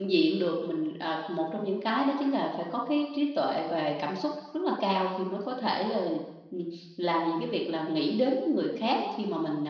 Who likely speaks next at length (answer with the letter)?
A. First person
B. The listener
A